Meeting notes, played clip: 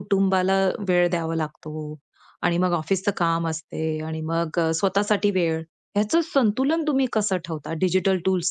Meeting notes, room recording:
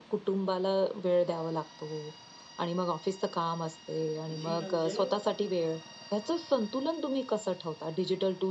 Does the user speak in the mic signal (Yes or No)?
Yes